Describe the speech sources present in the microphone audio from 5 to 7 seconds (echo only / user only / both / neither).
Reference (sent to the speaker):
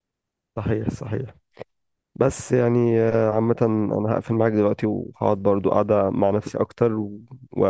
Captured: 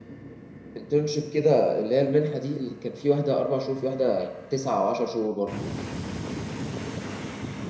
user only